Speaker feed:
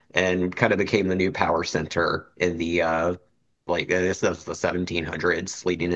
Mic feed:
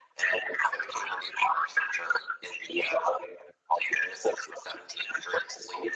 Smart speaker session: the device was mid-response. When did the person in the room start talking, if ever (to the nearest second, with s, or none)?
none